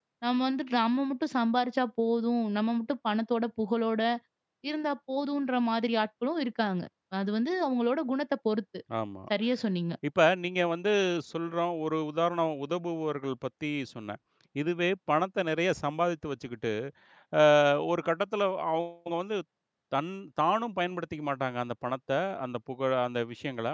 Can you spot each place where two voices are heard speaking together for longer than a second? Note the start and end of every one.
none

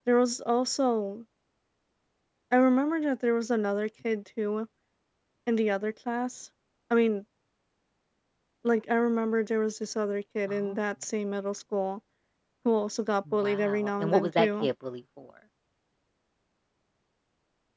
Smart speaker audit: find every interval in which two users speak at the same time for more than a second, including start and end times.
13.3-14.7

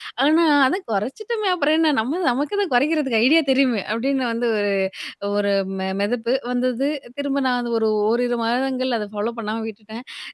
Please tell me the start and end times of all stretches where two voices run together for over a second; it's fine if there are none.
none

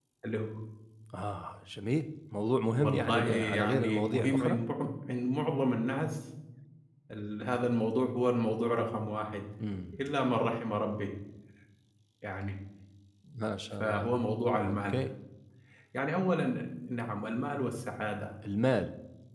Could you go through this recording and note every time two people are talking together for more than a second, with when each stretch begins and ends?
2.7-4.6

